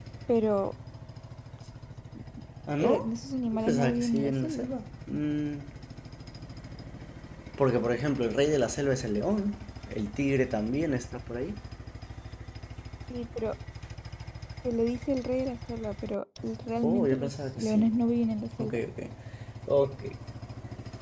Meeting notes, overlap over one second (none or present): present